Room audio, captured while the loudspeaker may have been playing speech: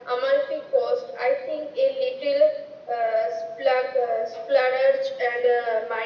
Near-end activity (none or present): none